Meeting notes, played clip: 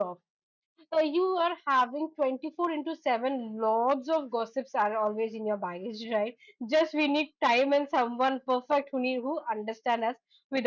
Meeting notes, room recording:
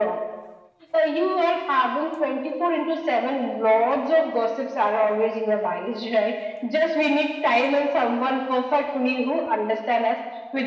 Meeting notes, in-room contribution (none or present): none